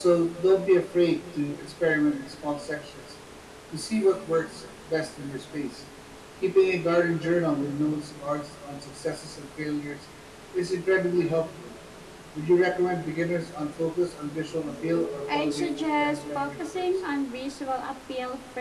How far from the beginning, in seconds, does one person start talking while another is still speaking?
15.3 s

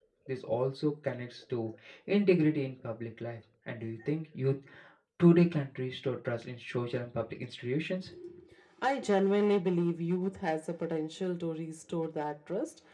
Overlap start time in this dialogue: none

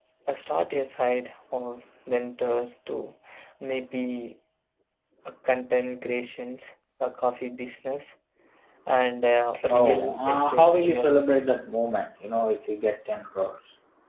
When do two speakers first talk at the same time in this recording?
9.7 s

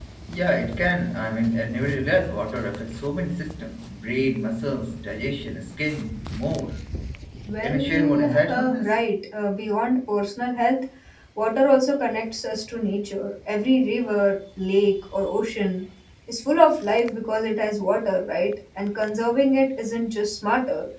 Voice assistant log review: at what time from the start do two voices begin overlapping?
7.6 s

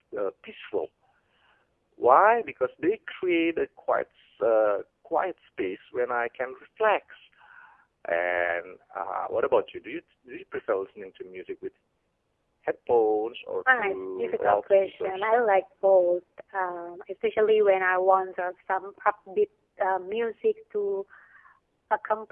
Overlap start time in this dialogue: 13.7 s

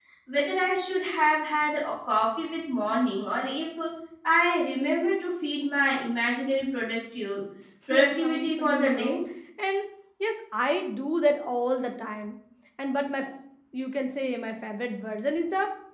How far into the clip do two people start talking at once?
7.9 s

